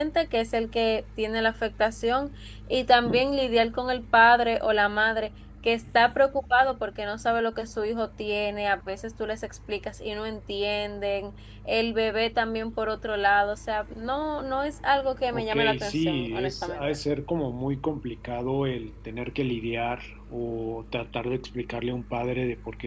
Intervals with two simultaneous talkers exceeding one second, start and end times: 15.3-16.8

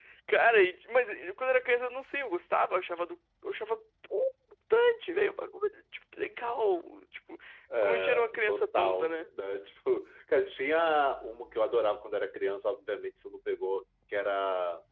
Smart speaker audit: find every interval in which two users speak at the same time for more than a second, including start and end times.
7.8-9.3

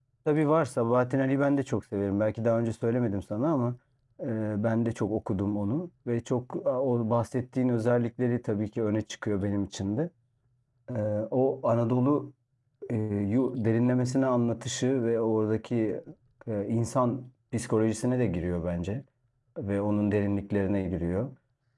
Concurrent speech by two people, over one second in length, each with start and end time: none

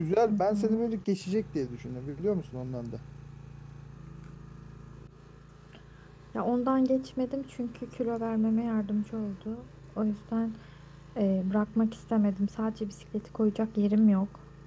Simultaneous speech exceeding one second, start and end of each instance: none

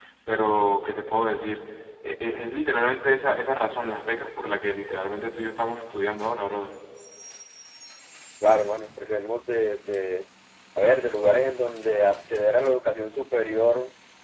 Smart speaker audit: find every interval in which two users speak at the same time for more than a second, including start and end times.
none

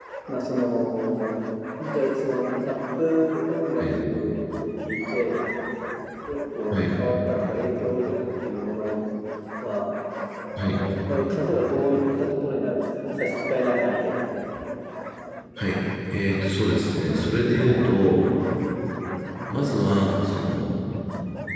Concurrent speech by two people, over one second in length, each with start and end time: none

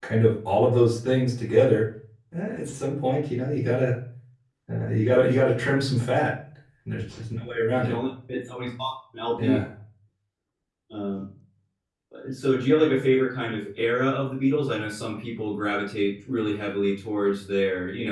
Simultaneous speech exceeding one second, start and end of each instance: none

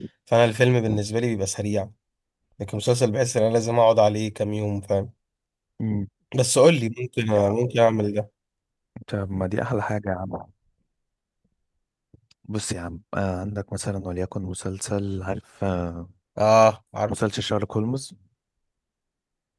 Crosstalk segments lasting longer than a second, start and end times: none

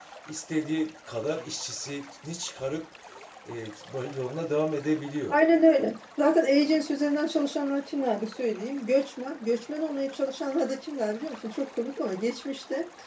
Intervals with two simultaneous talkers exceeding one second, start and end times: none

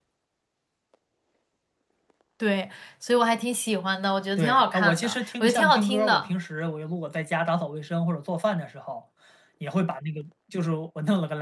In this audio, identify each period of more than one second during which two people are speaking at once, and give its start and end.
4.4-6.2

